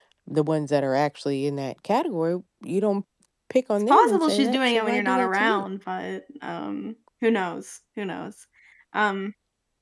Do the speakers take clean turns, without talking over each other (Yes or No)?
No